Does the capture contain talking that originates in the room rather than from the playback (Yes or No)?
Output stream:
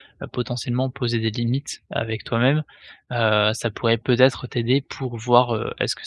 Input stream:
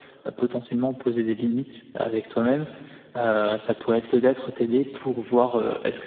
No